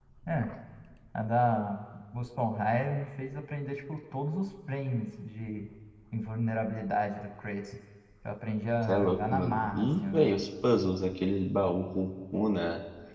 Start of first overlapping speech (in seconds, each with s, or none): 8.8 s